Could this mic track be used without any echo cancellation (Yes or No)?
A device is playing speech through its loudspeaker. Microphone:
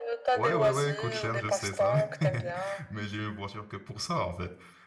No